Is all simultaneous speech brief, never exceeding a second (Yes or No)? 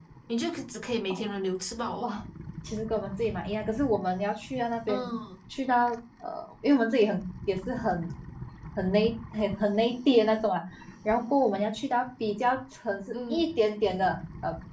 Yes